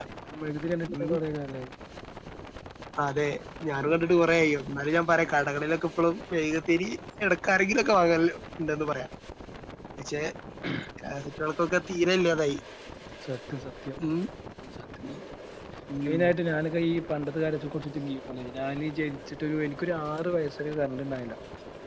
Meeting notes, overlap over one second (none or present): none